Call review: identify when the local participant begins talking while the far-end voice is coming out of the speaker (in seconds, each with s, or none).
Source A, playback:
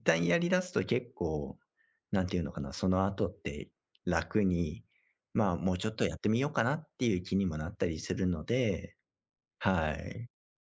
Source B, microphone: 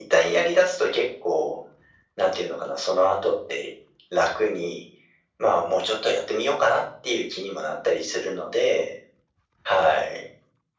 none